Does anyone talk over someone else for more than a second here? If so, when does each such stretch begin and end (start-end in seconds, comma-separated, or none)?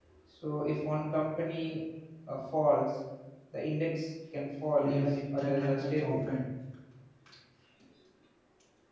4.8-6.2